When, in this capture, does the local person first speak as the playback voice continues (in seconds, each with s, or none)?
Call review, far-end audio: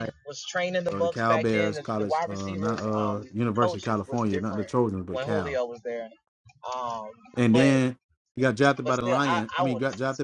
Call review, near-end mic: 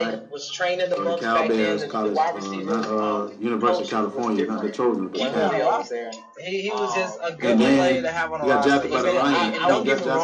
5.1 s